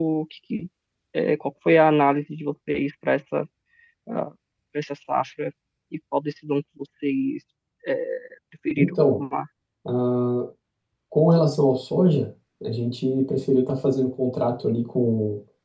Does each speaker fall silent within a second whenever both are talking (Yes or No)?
Yes